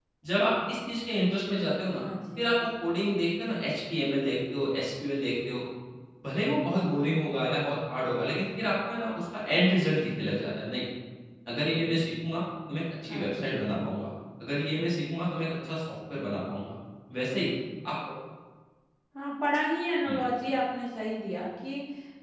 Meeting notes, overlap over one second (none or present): none